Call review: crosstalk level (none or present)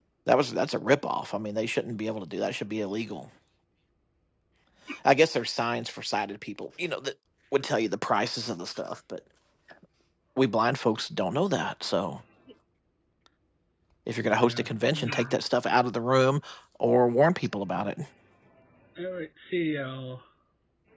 present